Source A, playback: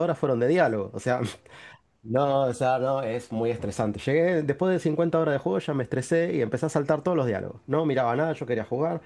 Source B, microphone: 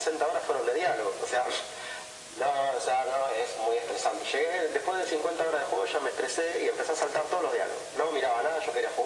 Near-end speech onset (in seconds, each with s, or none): none